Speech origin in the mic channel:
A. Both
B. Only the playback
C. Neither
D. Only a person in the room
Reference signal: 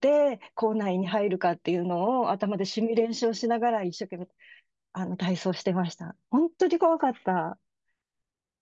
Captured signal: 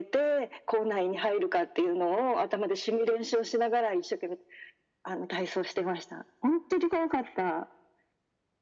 B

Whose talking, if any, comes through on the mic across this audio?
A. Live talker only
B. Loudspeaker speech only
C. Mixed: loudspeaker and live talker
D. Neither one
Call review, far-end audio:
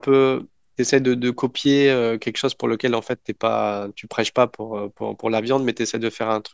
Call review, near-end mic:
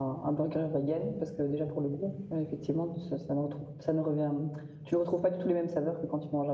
A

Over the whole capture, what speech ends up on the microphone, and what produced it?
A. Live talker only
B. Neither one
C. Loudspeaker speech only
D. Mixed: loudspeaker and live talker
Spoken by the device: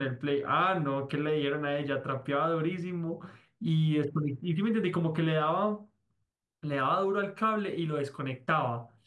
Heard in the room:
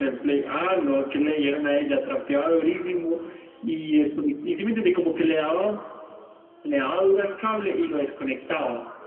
C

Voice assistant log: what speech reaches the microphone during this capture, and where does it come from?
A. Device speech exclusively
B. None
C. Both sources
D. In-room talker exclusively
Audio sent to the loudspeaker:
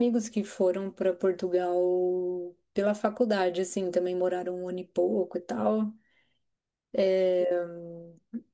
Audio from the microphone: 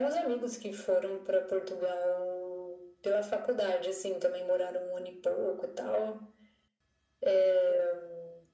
A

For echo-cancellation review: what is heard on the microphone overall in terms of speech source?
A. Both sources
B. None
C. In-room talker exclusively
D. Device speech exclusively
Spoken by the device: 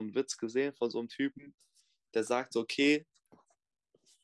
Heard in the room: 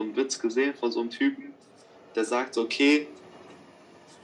D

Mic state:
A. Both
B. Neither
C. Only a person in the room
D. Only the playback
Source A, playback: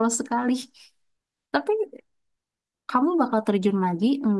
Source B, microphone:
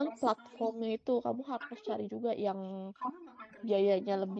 A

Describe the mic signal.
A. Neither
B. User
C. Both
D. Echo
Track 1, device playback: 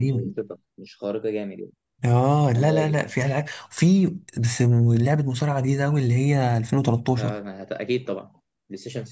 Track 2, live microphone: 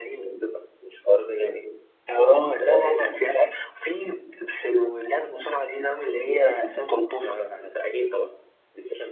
D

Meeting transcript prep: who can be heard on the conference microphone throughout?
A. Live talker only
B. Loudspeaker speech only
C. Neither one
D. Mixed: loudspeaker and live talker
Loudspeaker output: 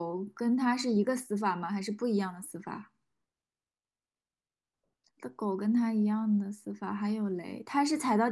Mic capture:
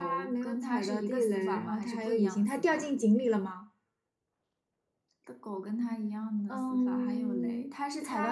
D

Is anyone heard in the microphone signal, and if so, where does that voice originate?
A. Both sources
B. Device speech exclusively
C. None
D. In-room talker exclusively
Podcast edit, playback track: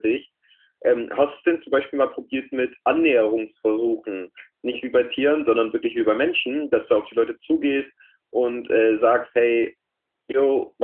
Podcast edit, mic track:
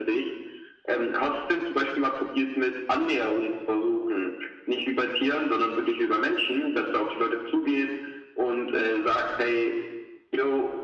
B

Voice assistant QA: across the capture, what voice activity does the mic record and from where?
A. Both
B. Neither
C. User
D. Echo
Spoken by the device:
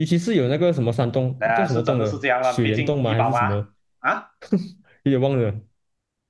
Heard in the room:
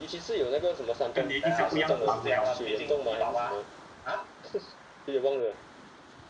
A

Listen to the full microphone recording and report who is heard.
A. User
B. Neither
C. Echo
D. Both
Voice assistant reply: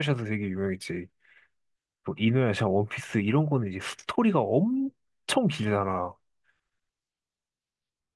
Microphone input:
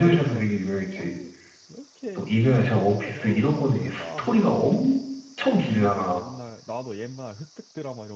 D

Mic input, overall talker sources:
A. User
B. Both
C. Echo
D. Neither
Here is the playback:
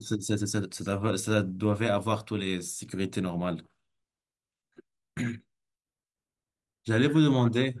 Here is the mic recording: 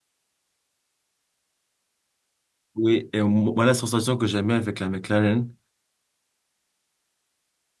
A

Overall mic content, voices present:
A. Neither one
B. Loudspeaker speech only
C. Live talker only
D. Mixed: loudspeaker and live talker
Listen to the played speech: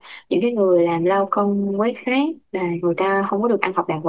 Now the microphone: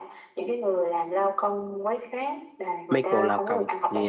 D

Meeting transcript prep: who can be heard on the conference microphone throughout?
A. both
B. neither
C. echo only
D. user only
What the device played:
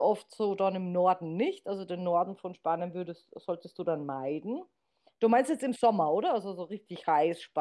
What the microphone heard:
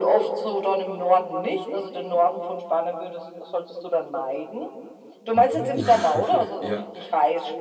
A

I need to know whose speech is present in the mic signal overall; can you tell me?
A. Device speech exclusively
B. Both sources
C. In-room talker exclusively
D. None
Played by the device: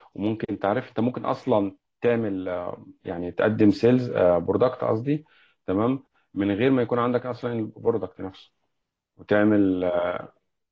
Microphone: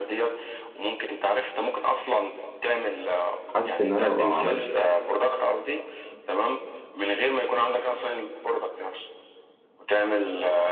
B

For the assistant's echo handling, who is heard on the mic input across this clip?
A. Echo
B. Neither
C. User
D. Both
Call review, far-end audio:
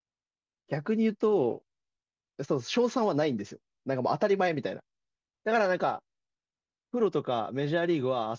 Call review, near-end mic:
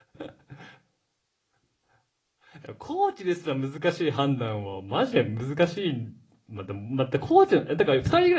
C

